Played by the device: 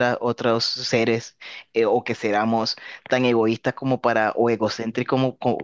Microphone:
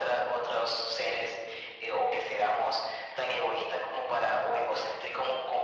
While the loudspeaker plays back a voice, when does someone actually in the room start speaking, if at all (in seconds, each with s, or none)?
none